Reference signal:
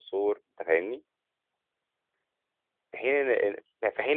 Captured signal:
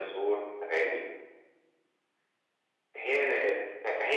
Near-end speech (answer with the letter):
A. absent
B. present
A